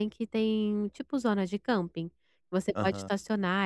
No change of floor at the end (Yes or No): Yes